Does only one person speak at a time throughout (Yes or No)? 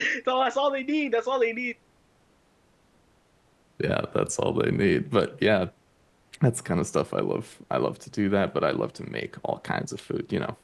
Yes